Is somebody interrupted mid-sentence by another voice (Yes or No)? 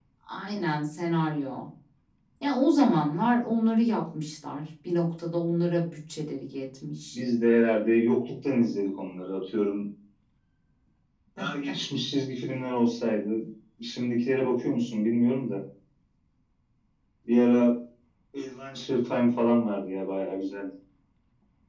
No